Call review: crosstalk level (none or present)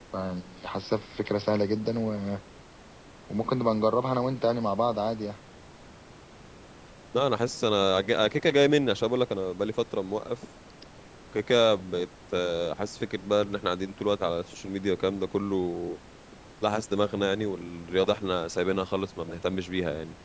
none